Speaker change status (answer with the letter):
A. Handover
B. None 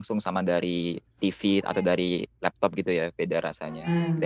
A